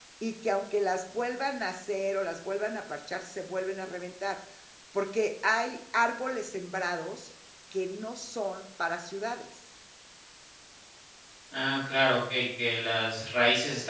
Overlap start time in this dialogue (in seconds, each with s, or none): none